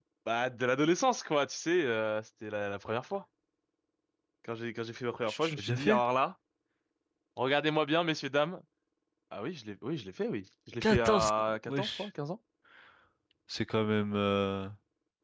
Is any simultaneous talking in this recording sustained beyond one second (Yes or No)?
Yes